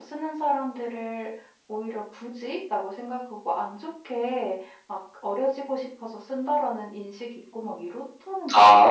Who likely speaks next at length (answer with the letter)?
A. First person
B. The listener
B